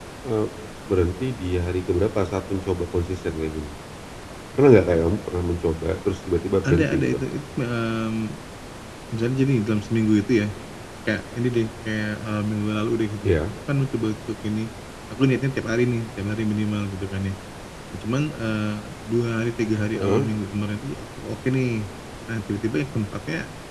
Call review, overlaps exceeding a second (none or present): none